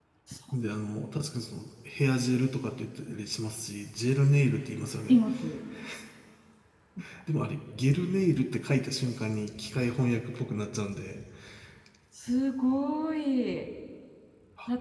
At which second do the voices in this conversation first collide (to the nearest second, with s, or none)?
none